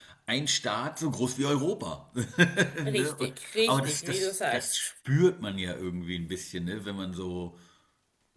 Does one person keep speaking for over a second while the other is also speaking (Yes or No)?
Yes